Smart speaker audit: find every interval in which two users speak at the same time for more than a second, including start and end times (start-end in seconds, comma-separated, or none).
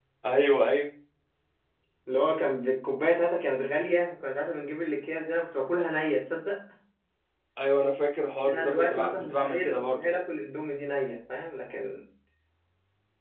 8.5-10.2